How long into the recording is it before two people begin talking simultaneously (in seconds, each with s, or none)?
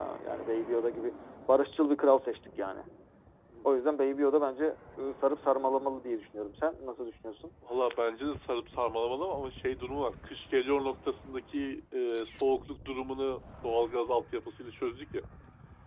none